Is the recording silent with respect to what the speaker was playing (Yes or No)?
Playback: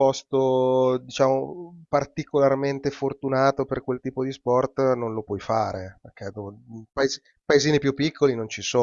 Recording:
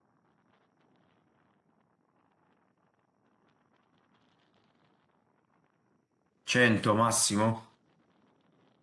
Yes